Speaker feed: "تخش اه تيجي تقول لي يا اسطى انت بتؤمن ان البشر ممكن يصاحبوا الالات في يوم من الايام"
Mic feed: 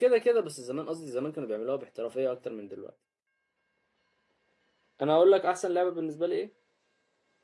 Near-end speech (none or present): present